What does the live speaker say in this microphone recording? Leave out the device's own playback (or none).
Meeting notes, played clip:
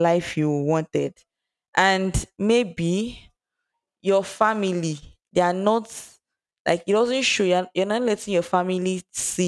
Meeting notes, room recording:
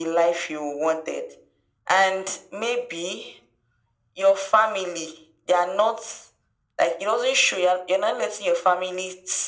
none